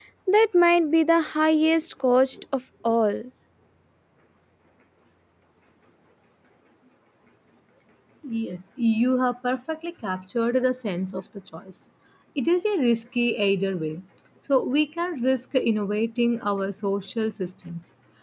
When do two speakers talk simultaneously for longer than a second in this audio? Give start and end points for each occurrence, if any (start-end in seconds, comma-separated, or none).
none